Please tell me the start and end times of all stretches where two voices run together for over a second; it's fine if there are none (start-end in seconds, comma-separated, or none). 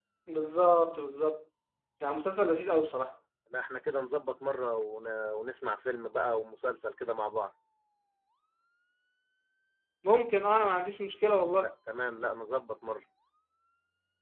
none